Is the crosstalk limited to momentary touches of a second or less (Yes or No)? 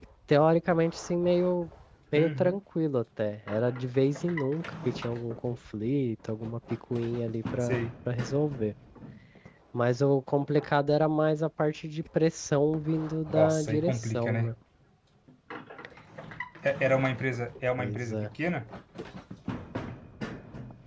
No